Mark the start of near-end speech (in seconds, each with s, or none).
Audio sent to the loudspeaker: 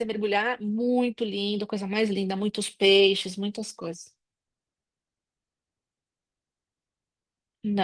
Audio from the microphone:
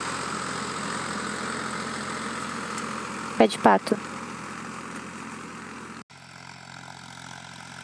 3.4 s